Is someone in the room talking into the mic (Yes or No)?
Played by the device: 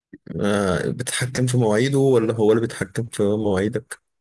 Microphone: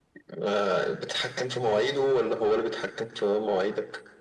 No